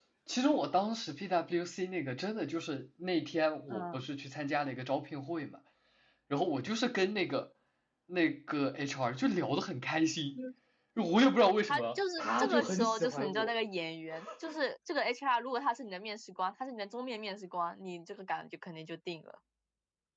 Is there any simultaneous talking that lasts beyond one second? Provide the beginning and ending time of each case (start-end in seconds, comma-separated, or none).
11.7-13.5